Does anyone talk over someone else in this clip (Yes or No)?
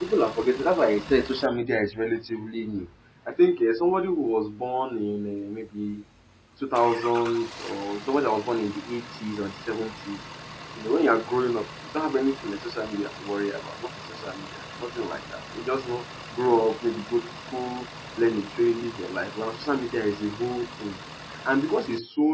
No